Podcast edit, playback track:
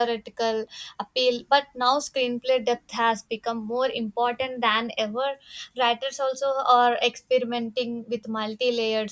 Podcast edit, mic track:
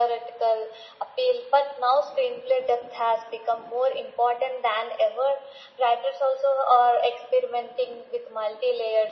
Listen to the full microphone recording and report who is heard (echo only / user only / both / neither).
echo only